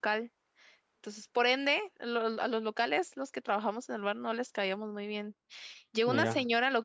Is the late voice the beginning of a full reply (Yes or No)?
No